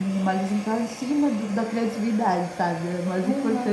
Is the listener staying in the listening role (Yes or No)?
No